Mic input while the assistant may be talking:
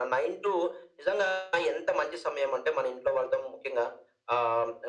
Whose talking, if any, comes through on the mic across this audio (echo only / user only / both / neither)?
echo only